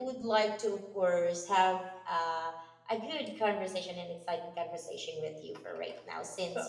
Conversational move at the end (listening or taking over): listening